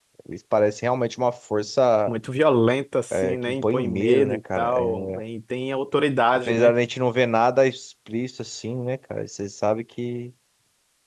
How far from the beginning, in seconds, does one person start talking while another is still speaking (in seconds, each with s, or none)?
3.1 s